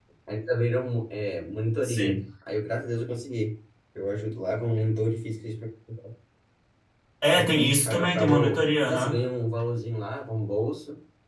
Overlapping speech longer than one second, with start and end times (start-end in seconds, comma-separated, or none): 7.8-9.2